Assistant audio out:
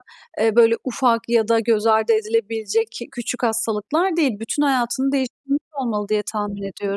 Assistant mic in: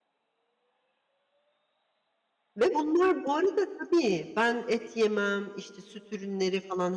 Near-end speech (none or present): present